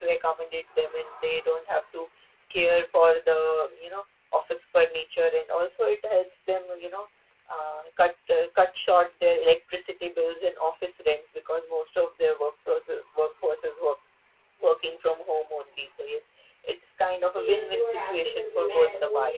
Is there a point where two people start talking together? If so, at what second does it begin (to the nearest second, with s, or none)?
17 s